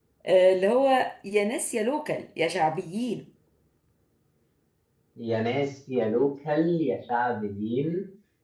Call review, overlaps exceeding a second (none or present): none